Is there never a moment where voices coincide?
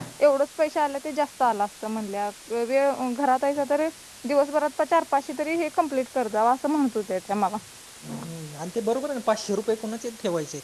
Yes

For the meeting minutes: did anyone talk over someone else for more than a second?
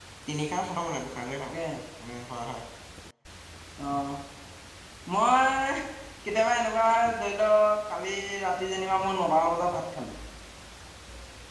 No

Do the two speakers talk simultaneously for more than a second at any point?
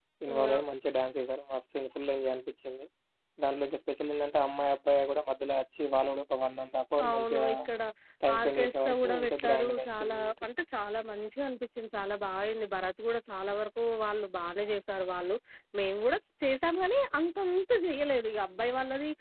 Yes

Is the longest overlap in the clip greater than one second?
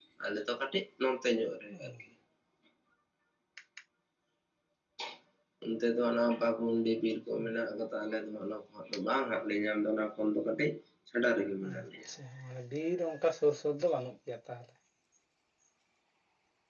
No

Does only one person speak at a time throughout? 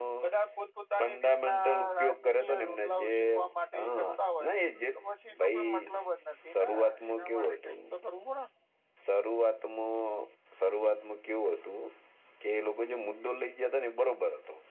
No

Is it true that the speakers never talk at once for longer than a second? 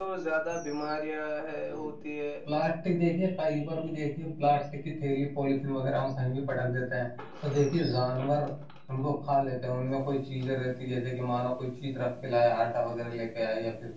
Yes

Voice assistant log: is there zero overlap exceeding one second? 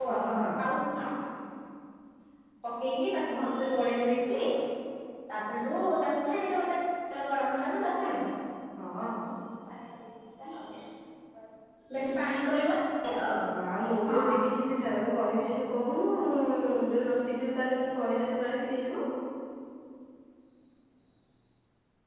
Yes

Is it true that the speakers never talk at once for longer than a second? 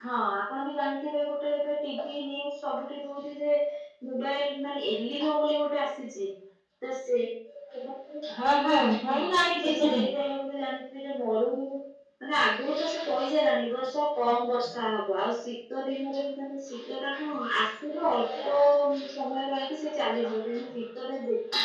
Yes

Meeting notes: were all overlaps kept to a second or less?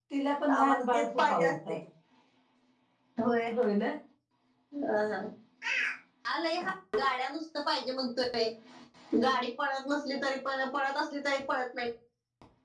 No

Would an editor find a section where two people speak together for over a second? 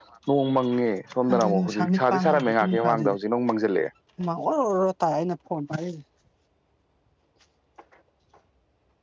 Yes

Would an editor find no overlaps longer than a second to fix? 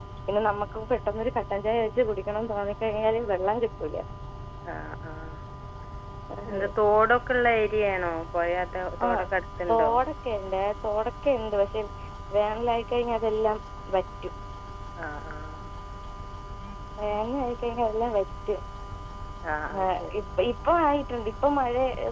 Yes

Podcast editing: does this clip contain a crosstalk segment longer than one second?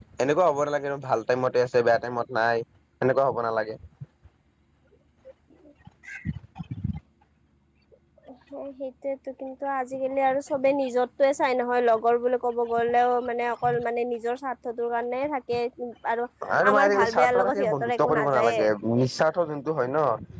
Yes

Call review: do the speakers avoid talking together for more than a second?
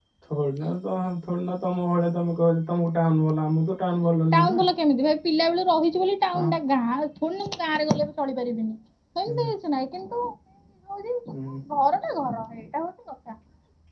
Yes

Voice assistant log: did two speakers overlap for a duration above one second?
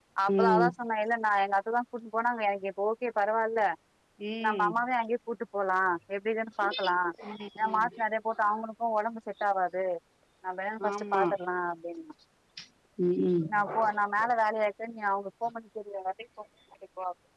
No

